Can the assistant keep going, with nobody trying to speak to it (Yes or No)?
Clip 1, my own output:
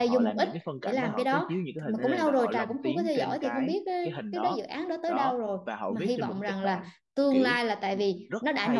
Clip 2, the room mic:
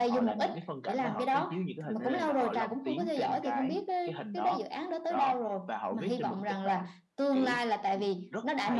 Yes